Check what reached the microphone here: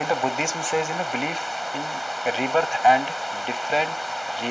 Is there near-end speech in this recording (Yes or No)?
No